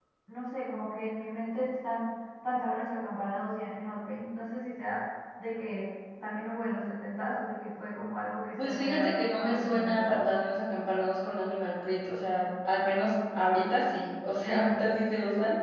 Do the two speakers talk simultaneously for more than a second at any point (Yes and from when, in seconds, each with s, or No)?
Yes, from 8.6 s